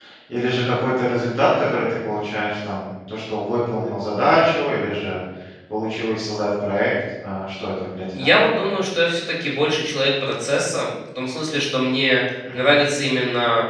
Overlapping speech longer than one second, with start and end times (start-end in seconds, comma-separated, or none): none